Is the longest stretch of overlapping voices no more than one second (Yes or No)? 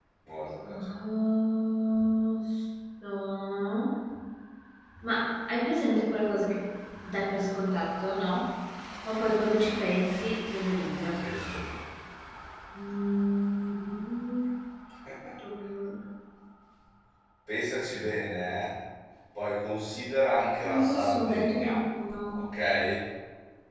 No